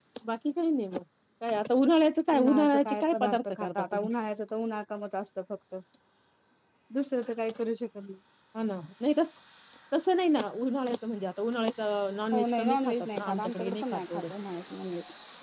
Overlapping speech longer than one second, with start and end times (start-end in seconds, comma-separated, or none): 2.4-4.1, 12.3-14.2